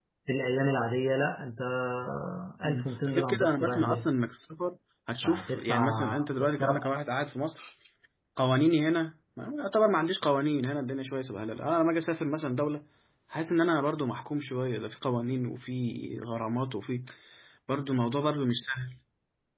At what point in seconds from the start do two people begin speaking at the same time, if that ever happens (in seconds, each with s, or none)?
2.6 s